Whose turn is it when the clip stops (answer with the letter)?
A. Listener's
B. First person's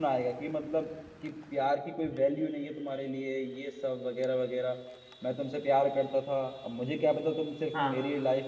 B